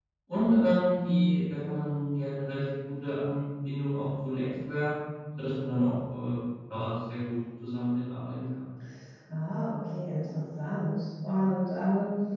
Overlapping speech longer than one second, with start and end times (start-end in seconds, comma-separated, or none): none